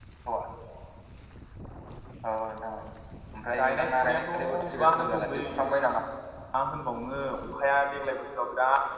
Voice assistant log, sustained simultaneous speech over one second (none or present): present